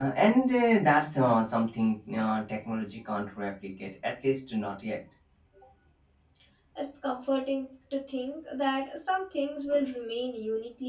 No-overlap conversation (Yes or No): Yes